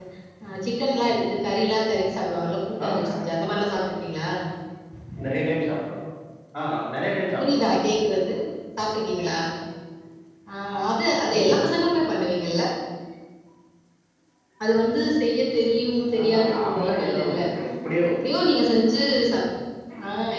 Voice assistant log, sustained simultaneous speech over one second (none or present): present